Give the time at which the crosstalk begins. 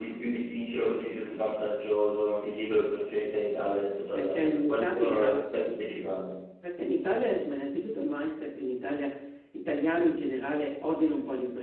4.1 s

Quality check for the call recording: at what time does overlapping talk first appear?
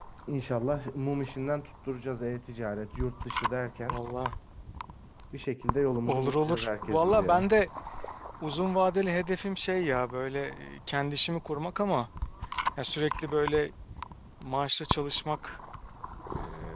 6.1 s

